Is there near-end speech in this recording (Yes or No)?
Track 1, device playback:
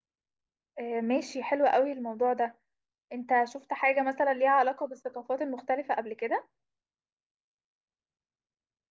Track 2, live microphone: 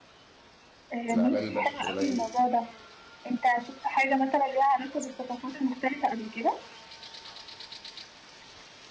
Yes